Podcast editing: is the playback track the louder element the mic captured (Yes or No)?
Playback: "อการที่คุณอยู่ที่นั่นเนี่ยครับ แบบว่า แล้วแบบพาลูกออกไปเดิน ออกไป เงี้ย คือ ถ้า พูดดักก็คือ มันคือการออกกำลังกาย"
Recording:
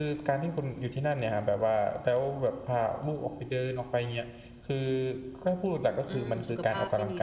Yes